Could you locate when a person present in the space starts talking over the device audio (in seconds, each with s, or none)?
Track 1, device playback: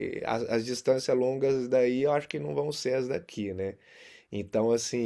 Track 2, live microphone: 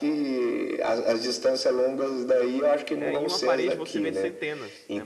3.0 s